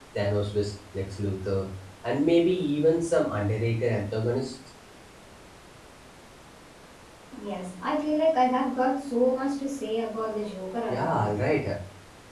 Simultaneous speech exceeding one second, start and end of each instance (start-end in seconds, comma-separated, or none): none